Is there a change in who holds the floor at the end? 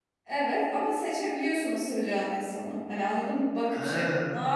No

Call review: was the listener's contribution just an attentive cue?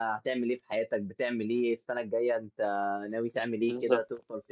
Yes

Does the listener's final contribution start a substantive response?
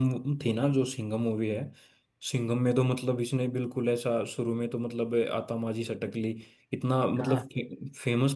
No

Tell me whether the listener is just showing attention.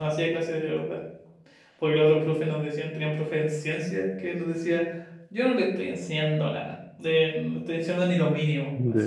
Yes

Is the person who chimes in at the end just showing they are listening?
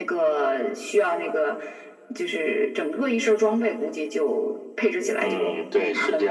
No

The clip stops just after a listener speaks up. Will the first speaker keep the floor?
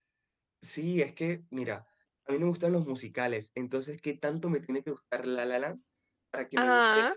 Yes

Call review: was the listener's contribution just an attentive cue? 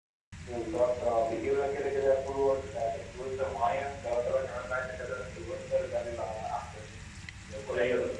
Yes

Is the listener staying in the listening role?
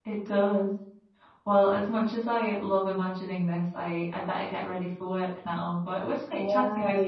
No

